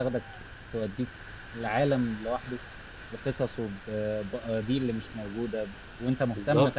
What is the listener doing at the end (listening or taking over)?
listening